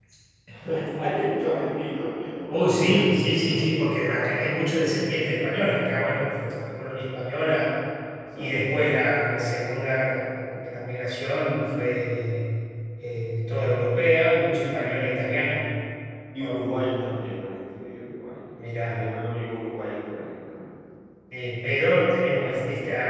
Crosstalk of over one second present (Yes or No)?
Yes